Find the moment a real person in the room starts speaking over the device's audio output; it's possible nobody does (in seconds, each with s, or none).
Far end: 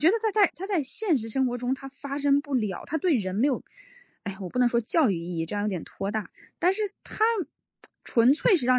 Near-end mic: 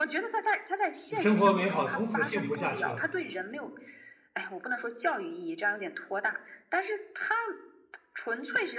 1.1 s